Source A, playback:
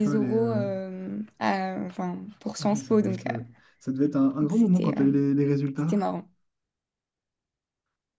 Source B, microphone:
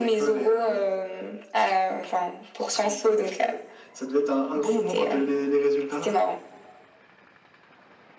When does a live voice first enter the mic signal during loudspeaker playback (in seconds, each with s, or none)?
none